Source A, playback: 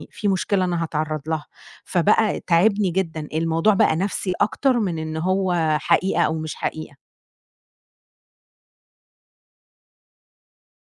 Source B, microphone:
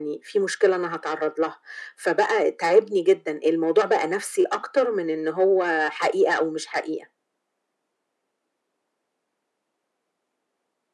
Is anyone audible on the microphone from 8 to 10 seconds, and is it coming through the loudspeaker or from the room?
neither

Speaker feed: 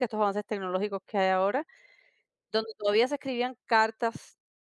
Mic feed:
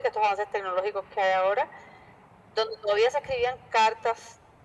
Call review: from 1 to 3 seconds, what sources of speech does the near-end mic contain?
echo only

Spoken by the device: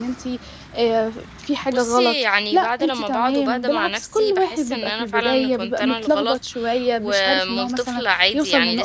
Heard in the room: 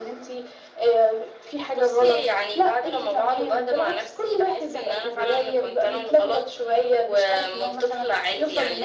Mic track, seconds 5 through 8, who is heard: echo only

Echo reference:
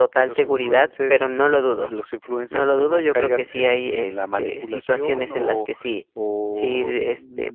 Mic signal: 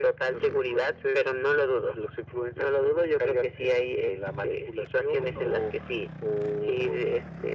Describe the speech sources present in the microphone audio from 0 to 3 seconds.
echo only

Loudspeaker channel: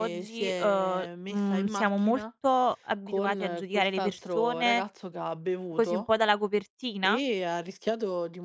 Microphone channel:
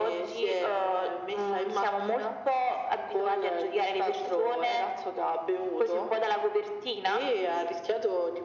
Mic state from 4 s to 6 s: echo only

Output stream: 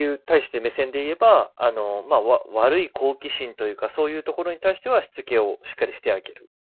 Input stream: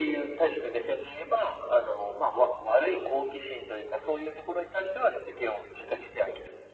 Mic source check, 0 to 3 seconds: echo only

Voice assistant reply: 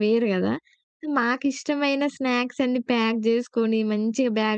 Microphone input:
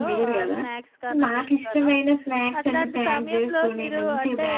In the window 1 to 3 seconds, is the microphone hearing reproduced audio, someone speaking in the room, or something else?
both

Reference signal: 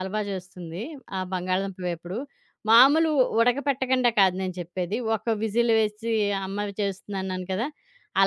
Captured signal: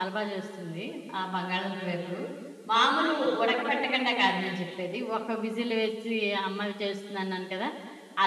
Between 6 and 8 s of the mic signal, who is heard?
echo only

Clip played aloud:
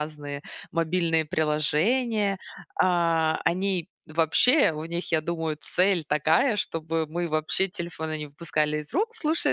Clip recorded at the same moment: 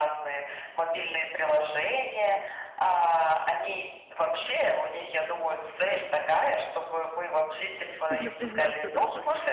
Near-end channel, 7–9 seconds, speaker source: both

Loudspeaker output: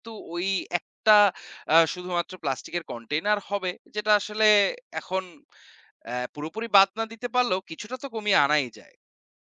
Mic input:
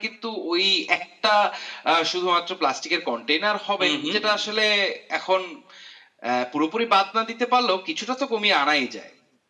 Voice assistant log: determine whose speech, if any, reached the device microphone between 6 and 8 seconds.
echo only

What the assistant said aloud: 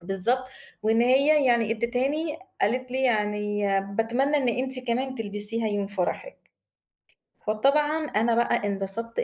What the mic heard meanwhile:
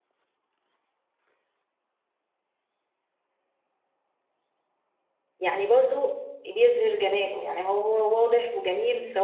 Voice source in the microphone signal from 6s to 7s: user only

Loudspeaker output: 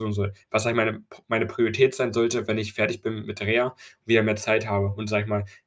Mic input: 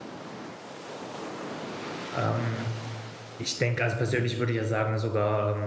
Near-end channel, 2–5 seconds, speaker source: user only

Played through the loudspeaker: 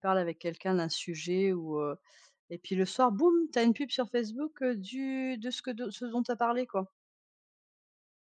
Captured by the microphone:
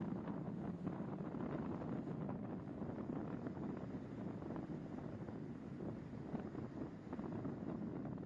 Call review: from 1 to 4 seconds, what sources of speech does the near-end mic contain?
neither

